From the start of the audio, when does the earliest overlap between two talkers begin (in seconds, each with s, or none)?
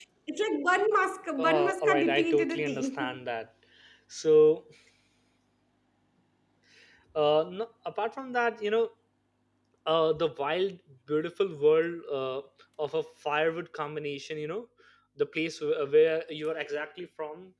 1.4 s